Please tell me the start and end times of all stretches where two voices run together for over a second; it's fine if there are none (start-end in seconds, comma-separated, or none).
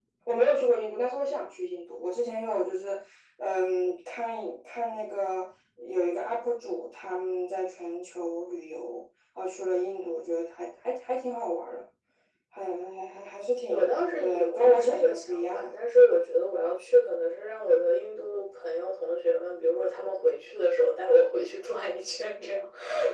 13.7-15.7